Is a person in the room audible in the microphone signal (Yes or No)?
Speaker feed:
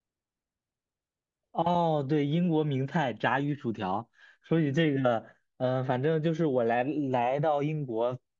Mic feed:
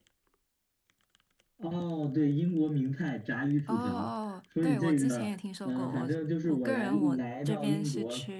Yes